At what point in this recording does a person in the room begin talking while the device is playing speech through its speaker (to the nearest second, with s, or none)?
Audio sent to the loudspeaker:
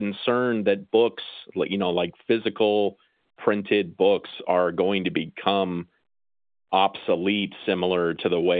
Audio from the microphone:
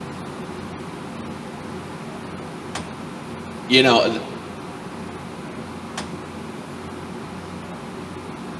4 s